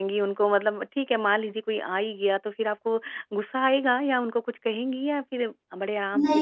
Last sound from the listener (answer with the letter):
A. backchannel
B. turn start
B